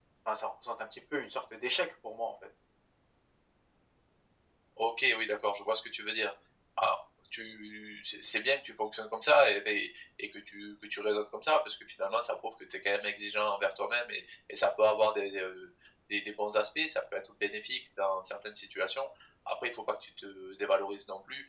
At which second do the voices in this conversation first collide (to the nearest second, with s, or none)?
none